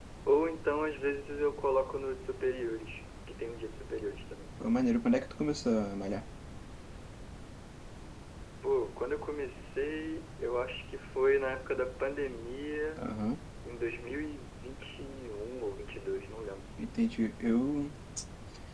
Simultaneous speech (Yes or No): No